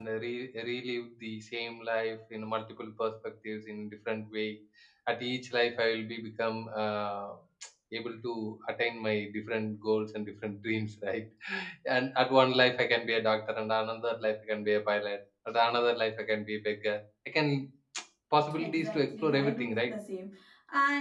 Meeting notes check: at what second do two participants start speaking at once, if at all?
19 s

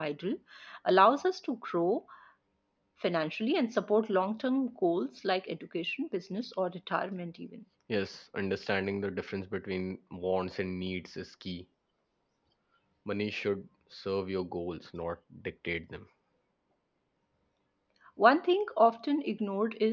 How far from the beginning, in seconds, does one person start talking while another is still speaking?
none

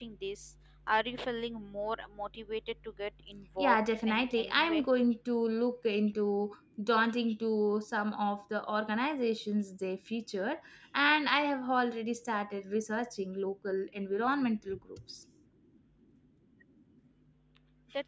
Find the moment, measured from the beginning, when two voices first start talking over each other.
4 s

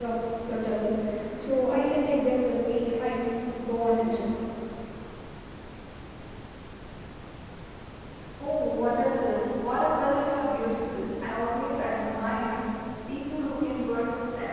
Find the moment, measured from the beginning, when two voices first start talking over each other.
none

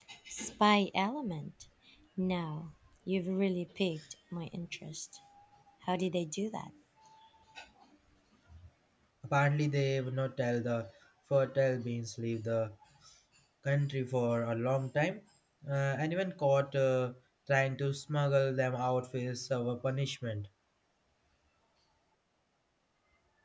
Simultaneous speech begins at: none

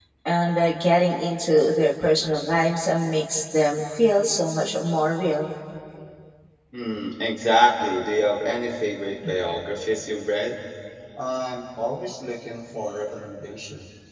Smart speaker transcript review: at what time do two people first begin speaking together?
none

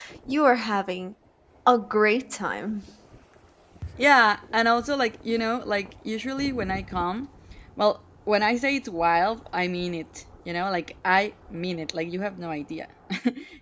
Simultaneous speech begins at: none

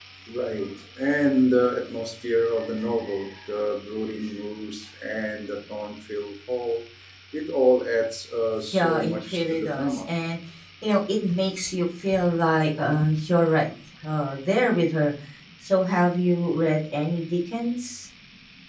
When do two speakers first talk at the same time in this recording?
9 s

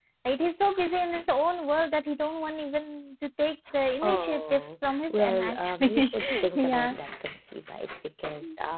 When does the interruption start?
4 s

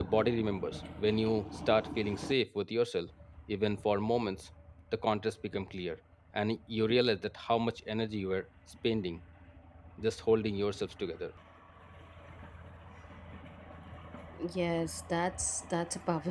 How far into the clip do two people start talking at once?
none

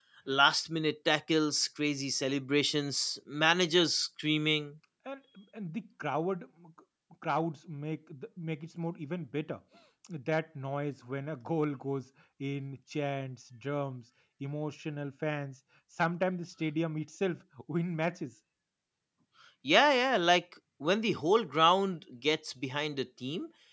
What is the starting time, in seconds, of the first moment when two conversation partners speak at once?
none

